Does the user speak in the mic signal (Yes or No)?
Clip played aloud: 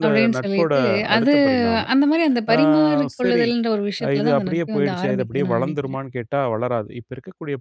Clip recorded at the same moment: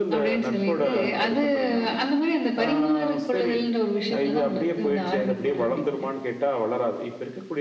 No